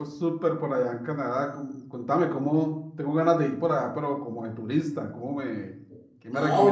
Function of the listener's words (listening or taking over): taking over